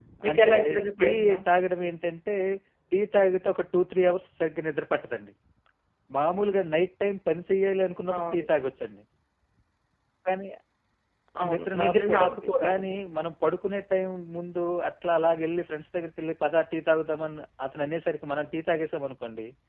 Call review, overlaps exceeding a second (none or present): present